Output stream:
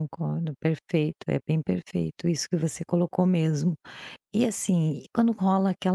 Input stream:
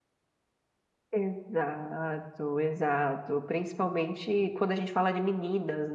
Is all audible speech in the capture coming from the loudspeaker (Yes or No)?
No